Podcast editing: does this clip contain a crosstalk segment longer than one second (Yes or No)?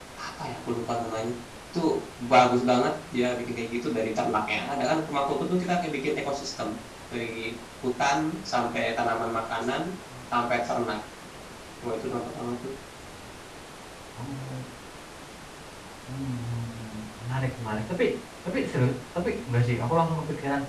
No